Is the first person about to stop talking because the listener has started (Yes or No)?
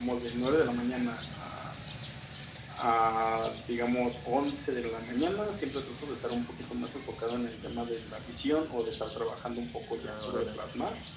No